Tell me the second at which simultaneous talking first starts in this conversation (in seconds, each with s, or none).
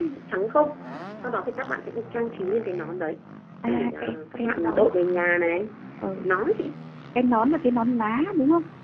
3.7 s